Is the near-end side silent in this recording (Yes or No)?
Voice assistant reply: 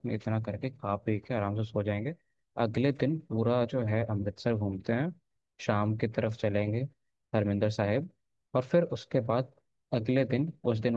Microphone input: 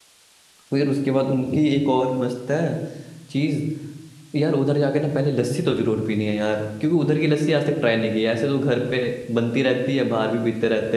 No